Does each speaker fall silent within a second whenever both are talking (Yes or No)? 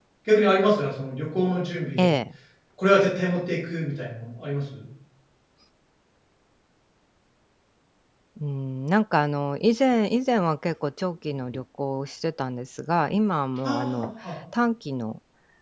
Yes